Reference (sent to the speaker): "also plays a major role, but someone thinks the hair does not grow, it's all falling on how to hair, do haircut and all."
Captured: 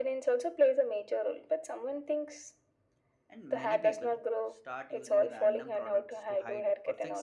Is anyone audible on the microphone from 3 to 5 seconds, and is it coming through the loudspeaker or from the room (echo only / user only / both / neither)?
both